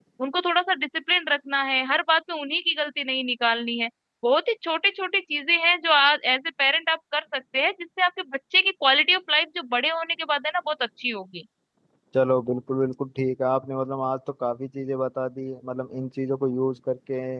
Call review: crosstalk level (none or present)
none